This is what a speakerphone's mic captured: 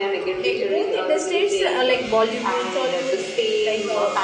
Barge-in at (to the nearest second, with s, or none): 0 s